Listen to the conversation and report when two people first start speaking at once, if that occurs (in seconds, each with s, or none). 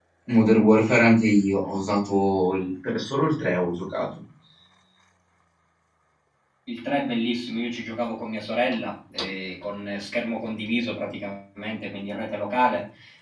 none